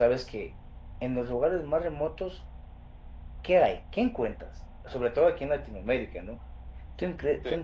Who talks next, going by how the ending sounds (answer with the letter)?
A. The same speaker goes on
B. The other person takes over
A